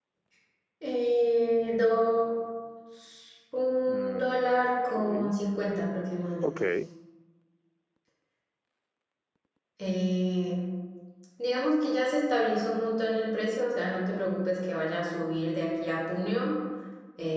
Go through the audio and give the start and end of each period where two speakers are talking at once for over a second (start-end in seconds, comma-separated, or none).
3.9-5.3